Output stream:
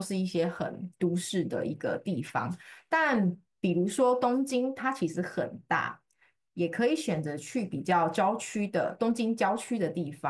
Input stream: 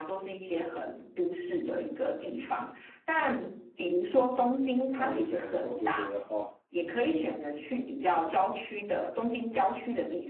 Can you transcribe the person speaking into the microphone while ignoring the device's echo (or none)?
泡温泉的时候，就觉得哦，